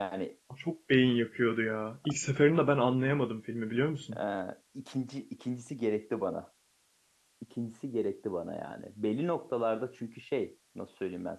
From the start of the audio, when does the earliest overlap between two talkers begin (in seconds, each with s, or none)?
none